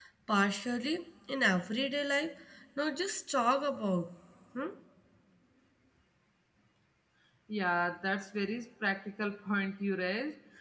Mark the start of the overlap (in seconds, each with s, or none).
none